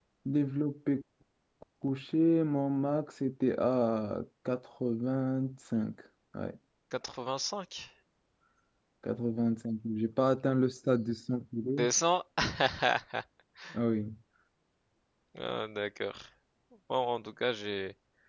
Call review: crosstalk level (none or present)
none